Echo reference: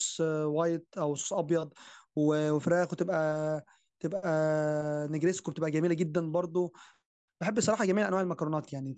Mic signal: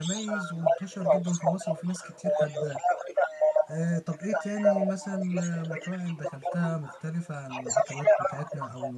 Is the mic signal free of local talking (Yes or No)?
No